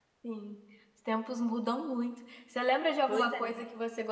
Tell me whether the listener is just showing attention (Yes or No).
Yes